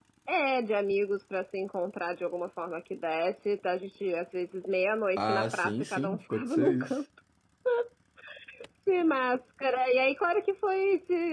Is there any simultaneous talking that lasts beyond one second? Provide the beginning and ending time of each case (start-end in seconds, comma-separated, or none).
5.2-7.0